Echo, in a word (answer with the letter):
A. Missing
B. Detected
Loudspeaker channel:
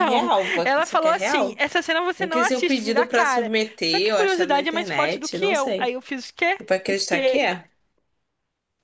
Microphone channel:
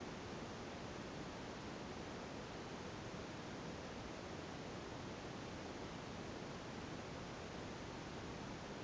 A